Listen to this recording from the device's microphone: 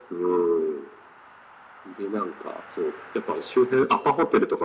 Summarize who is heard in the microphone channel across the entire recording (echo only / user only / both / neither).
echo only